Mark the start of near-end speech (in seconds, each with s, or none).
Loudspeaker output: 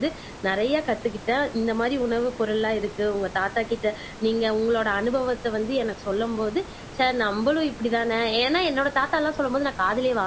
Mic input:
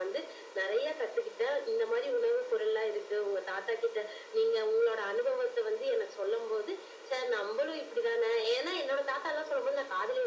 none